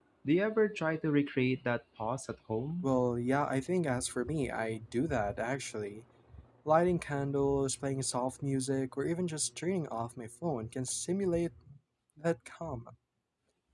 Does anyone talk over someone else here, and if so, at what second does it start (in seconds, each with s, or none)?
none